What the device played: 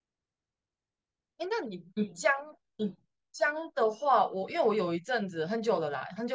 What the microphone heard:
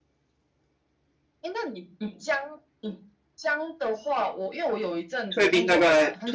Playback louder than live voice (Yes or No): No